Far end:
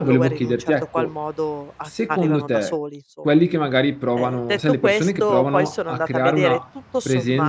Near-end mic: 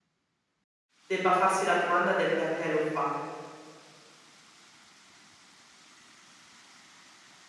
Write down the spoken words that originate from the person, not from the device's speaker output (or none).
debba farsi la domanda del perché lo fa.